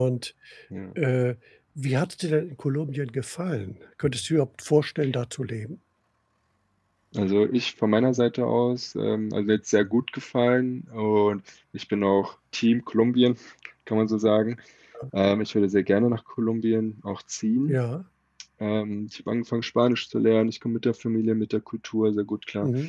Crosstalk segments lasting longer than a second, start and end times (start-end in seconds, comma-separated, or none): none